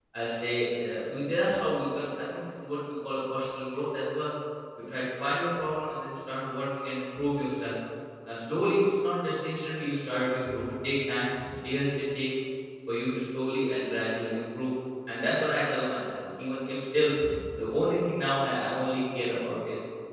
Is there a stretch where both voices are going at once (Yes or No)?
No